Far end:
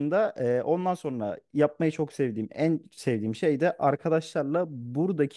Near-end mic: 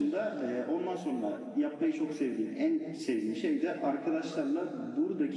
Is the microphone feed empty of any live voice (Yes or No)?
Yes